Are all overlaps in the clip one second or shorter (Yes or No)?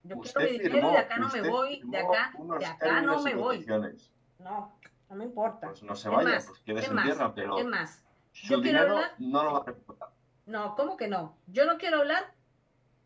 No